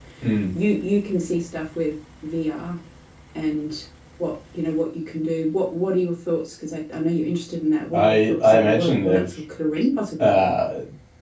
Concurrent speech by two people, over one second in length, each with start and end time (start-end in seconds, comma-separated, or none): 7.9-9.2